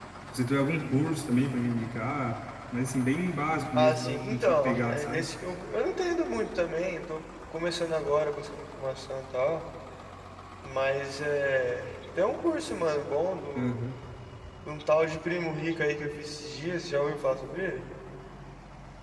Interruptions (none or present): present